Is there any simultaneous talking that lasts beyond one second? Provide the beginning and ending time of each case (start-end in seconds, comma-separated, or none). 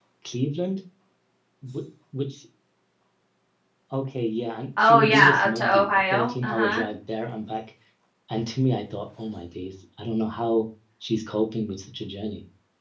4.8-6.8